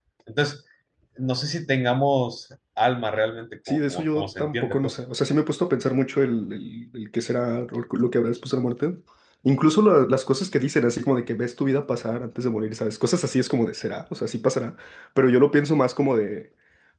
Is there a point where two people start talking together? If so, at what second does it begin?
4 s

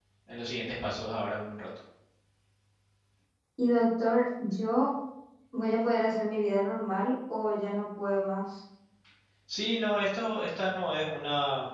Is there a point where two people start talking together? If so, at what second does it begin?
none

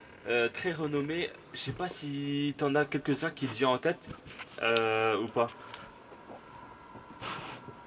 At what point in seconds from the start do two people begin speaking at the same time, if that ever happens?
none

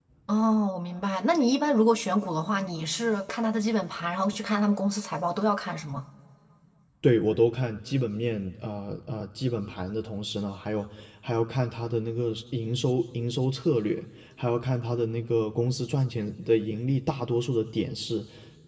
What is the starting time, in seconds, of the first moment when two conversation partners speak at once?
none

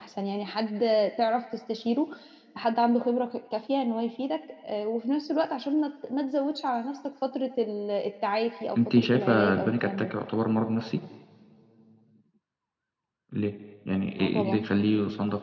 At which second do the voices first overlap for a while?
9 s

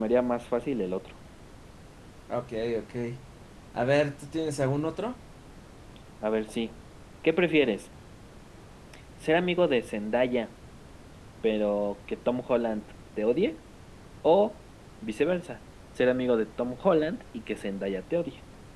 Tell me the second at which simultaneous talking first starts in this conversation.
none

